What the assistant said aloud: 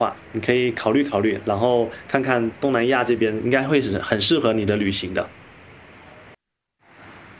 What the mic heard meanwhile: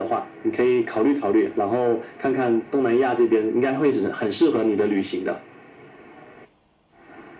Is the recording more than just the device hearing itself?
No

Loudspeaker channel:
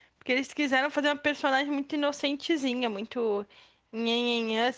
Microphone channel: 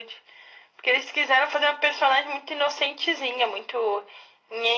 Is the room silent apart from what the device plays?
Yes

